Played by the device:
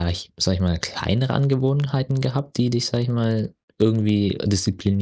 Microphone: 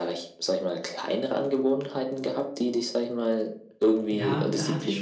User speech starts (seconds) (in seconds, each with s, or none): 4.1 s